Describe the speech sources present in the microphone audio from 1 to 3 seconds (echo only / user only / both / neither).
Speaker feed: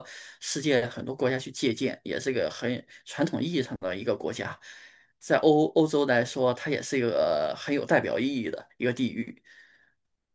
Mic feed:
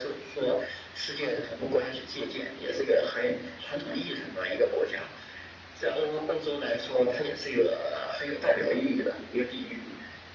echo only